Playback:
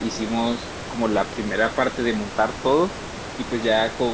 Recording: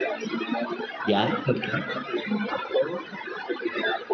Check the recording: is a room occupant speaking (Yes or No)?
Yes